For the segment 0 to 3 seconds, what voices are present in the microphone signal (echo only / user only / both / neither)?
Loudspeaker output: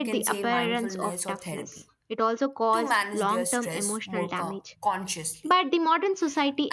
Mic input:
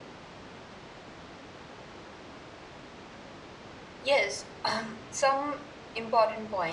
neither